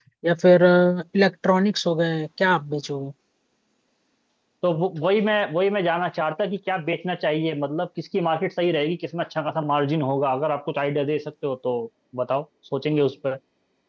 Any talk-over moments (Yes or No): No